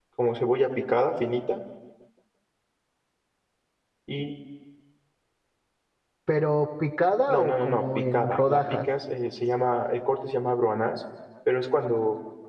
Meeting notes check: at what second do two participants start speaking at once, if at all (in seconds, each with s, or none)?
7.3 s